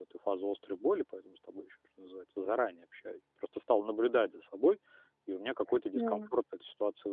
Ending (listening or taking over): listening